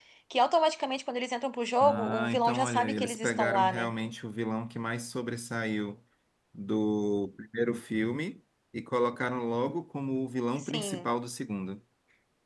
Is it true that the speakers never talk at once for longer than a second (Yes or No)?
No